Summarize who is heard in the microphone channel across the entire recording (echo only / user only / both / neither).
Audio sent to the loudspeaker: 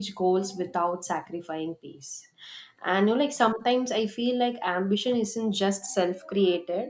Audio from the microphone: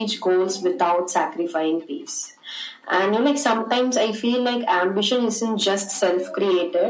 echo only